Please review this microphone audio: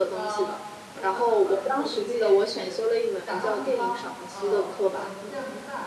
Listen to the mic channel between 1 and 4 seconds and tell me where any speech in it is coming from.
both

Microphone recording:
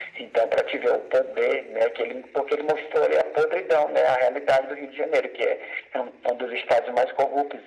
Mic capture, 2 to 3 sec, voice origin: echo only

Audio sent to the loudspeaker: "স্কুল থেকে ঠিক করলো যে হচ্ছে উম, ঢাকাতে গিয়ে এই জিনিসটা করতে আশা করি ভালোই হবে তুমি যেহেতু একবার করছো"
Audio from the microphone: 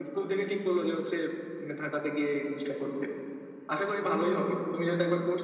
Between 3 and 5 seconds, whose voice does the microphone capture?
echo only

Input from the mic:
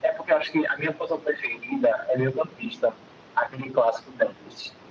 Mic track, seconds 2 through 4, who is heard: echo only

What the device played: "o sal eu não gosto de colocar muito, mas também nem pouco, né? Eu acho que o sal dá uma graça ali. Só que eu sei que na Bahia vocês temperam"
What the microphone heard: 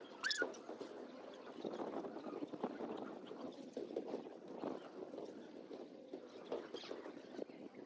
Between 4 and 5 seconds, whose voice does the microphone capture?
neither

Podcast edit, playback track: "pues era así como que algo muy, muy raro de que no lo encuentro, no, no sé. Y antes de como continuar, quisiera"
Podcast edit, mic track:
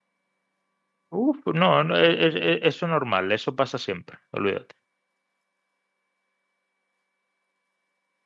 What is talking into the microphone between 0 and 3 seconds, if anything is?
user only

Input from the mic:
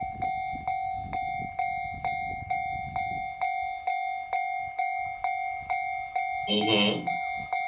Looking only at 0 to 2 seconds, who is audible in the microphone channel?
neither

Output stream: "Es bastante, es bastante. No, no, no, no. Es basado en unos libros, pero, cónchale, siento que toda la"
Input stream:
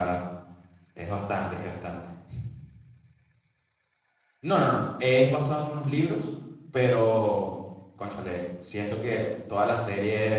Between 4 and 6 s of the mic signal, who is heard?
echo only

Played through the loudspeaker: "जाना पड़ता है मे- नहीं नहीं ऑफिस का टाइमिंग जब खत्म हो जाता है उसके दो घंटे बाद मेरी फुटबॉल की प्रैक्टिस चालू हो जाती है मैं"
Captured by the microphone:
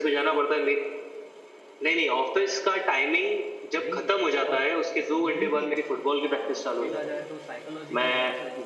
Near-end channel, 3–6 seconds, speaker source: both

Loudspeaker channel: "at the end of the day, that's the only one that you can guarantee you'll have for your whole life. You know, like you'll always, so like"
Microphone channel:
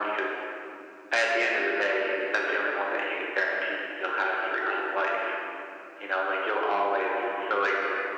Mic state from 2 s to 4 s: echo only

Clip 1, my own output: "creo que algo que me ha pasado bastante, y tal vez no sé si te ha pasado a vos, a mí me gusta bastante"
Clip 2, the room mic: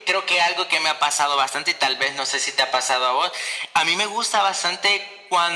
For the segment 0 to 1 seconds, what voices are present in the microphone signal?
echo only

